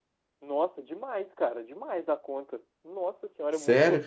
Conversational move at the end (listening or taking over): taking over